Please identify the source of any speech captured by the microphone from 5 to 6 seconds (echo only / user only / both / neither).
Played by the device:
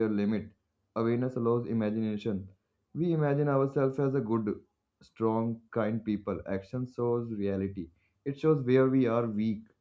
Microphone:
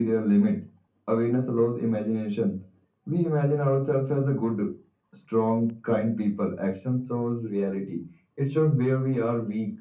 echo only